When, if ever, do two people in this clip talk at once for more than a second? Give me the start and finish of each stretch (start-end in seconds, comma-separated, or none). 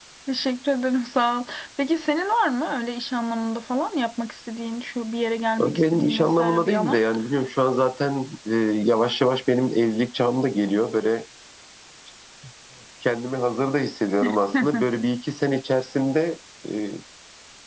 5.6-7.0